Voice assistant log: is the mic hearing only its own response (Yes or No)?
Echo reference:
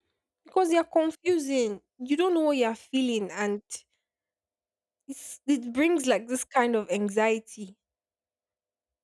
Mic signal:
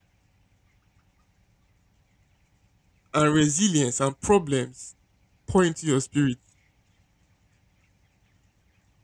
No